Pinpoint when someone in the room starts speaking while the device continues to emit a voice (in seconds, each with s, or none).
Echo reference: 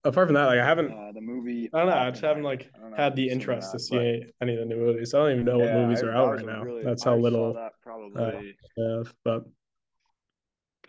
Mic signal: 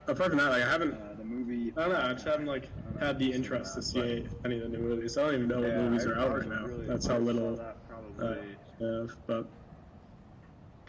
none